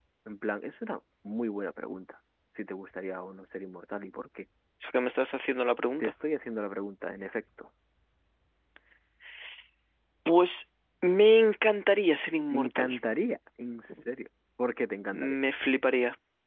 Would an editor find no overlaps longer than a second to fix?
Yes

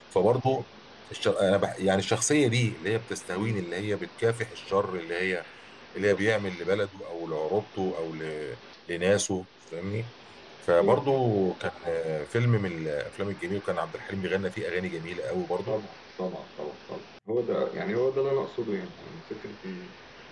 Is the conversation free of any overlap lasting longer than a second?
Yes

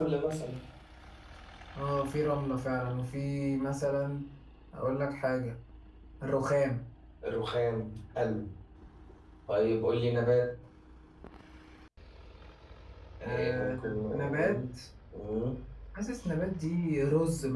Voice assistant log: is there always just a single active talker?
No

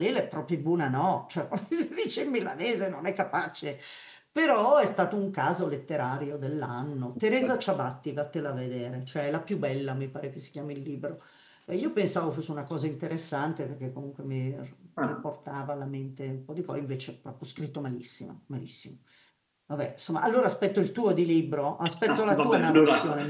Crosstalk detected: Yes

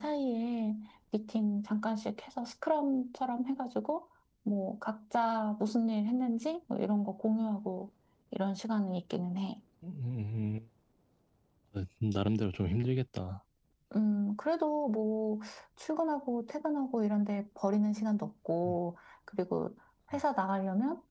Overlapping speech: No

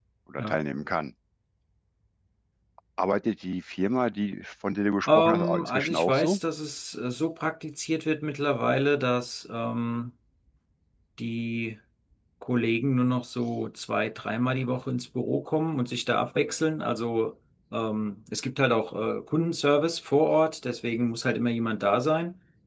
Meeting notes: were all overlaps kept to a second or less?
No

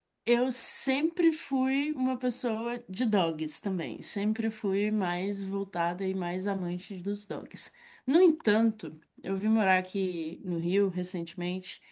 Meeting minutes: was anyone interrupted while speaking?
No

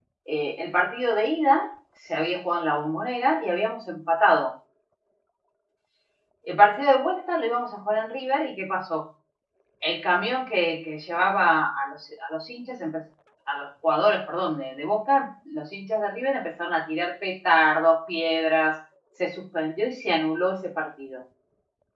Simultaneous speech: No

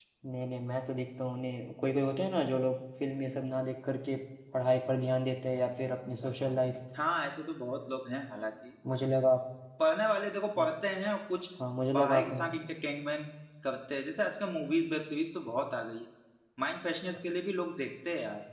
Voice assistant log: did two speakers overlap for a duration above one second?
No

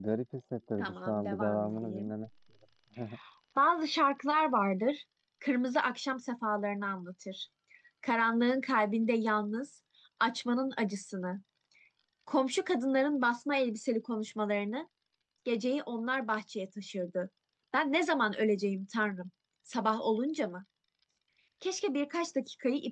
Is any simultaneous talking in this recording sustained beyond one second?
Yes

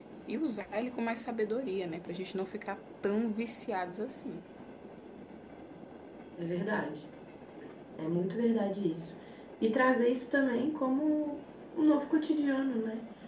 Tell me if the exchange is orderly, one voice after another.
Yes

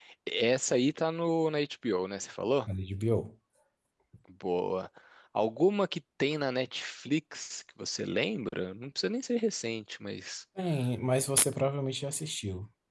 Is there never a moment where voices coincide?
Yes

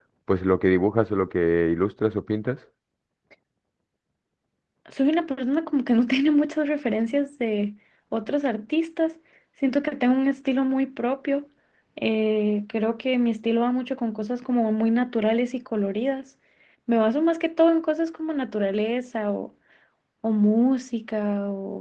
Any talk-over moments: No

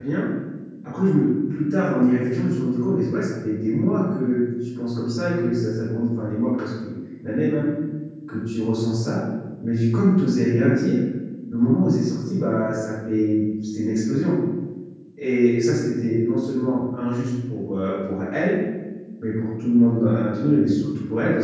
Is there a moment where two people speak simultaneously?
No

